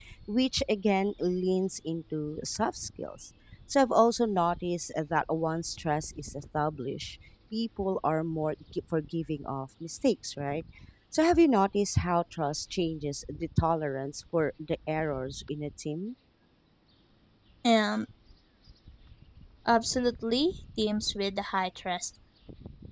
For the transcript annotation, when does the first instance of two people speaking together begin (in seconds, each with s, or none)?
none